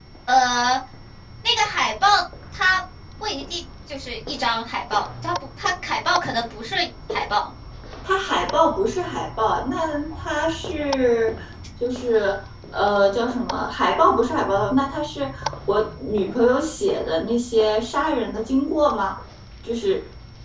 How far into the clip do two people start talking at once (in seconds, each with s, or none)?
none